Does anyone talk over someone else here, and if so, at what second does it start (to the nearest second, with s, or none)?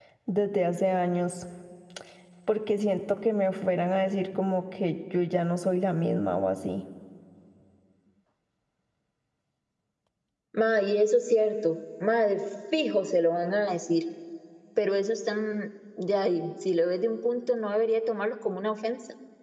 none